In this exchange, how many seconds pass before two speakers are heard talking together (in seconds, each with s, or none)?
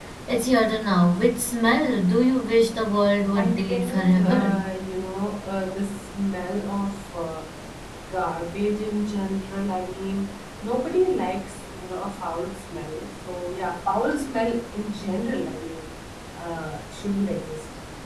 3.3 s